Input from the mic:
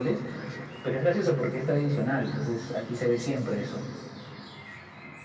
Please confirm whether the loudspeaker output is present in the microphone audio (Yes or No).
Yes